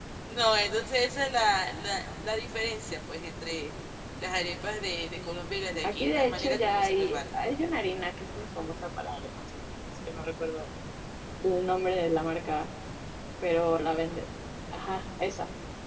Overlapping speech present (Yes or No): Yes